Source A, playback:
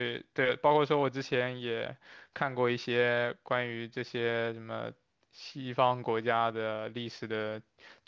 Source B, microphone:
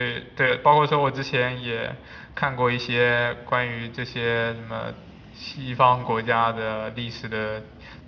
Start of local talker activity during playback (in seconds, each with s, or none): none